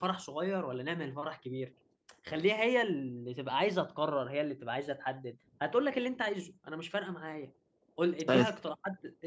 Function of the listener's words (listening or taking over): listening